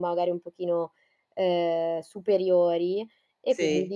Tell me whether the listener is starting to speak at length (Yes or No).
No